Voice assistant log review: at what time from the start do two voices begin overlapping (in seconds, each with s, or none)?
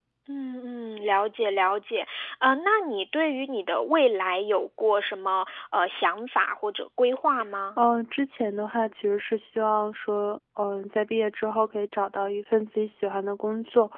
none